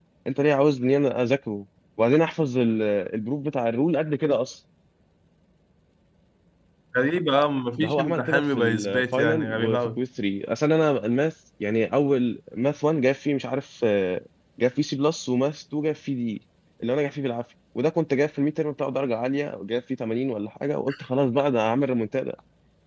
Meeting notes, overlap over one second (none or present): present